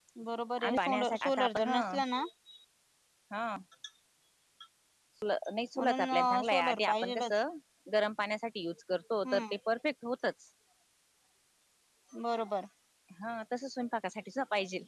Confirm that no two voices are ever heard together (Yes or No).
No